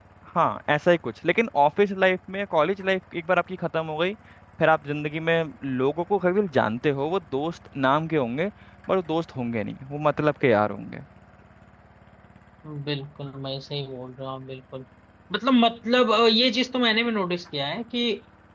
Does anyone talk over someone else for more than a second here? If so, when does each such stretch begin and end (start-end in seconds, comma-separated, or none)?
none